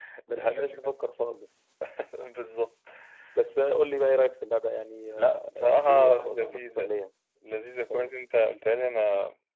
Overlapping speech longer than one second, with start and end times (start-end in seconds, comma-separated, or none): 5.2-7.0